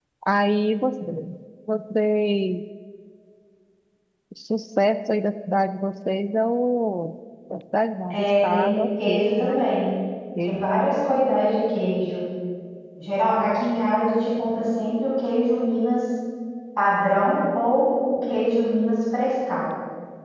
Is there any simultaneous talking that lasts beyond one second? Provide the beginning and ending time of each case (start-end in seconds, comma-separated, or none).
8.1-9.6